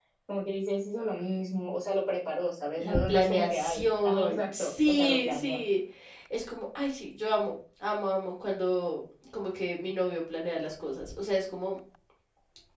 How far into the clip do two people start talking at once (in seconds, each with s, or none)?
2.8 s